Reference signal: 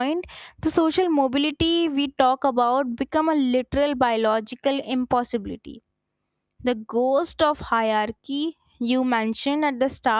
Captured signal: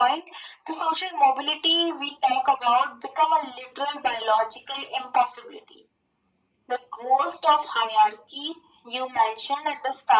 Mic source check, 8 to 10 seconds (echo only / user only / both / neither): echo only